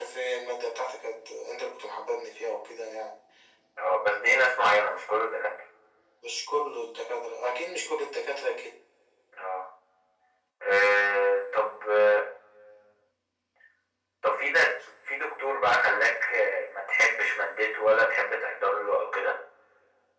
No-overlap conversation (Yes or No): Yes